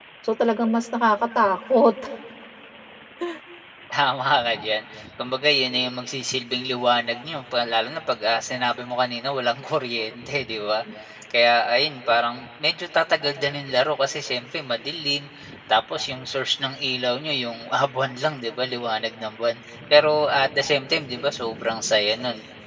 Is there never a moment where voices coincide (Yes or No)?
Yes